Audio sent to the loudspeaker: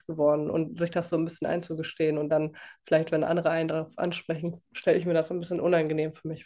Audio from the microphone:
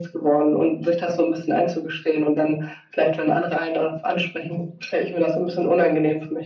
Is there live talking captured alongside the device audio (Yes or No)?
No